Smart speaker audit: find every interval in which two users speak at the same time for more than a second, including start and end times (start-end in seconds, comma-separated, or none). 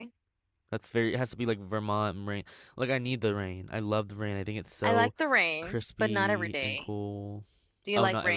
5.6-6.8